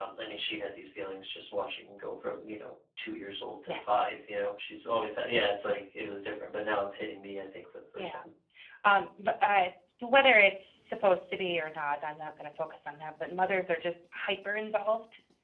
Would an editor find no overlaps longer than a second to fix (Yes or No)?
Yes